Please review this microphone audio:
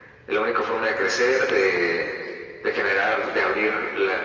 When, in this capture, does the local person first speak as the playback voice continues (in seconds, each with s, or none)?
none